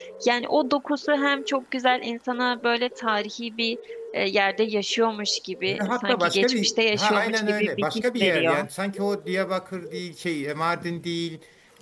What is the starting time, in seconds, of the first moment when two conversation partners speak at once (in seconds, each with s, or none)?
5.7 s